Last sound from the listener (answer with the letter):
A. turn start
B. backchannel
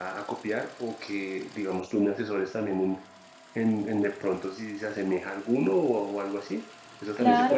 A